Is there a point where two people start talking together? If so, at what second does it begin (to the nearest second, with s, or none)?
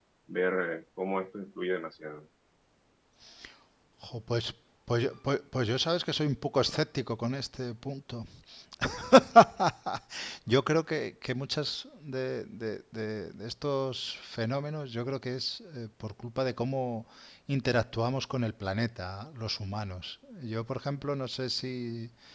none